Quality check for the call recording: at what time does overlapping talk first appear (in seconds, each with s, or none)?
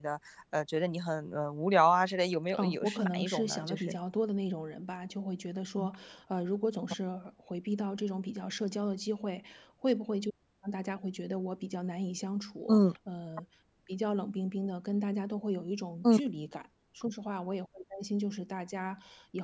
2.6 s